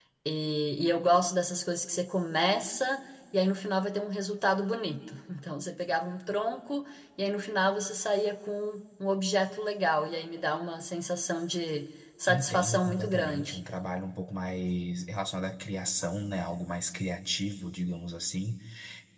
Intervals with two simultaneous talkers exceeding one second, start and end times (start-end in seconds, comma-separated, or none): 12.3-13.6